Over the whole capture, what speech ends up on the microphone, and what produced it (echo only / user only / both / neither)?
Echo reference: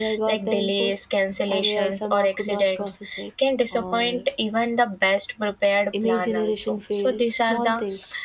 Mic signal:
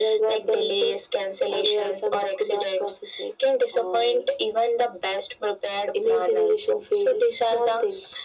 echo only